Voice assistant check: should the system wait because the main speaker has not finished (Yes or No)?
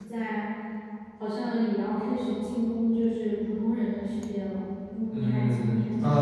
No